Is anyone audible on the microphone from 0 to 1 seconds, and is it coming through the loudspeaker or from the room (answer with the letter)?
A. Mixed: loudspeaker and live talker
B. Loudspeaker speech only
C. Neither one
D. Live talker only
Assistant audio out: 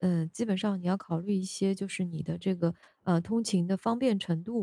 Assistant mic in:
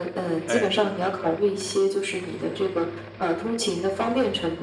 A